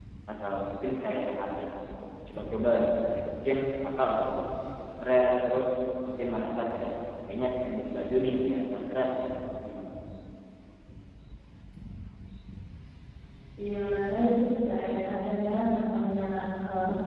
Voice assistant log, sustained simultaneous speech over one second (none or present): none